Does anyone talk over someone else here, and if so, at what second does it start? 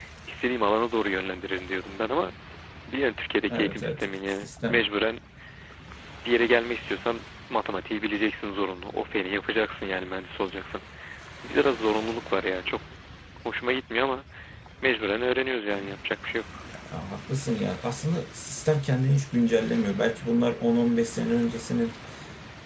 3.5 s

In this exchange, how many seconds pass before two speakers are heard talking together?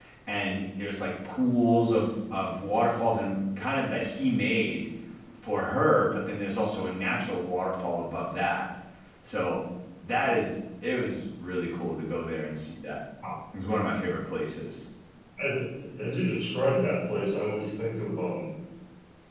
none

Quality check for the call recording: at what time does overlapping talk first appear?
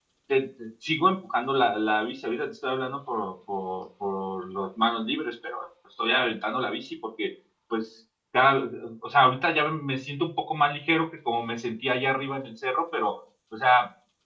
none

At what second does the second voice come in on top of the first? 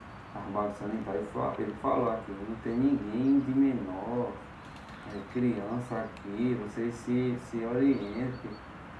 none

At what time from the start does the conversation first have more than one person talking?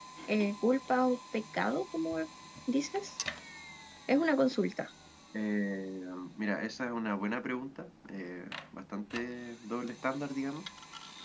none

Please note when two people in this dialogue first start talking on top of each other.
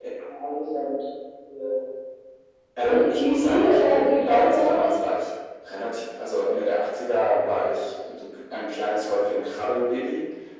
2.8 s

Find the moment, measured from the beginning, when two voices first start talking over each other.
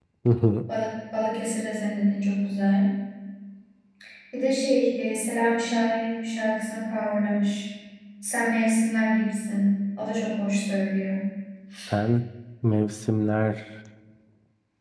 none

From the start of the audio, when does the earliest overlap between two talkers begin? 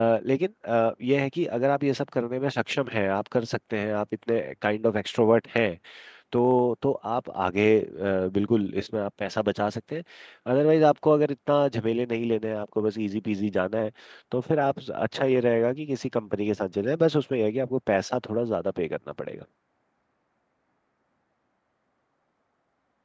none

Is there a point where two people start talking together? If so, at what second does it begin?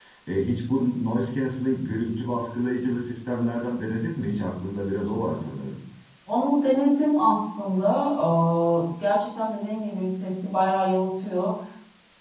none

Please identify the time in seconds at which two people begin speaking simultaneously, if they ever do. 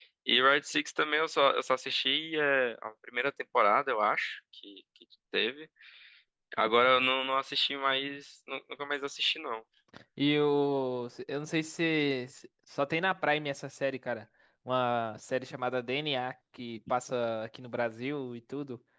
none

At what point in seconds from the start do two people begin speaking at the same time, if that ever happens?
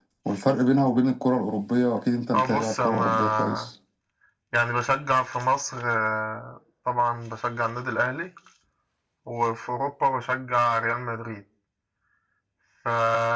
2.3 s

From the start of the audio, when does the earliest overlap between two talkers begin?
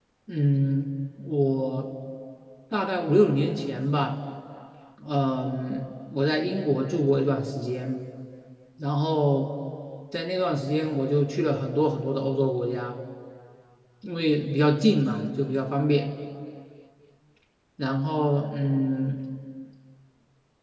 none

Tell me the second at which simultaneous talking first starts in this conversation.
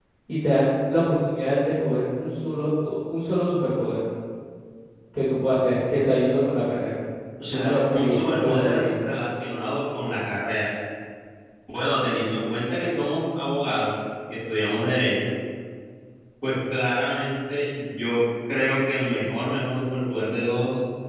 7.5 s

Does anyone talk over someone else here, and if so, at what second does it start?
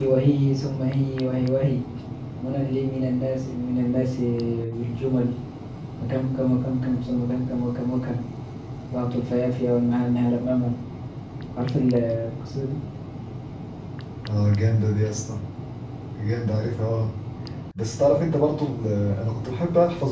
none

